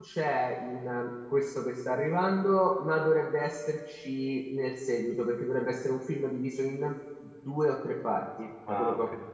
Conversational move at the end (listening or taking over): taking over